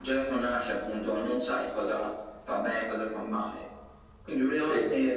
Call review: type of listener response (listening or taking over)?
listening